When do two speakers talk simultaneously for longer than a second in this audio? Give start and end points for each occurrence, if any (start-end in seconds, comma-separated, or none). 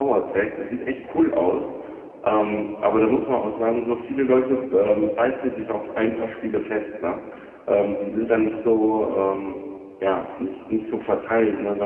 none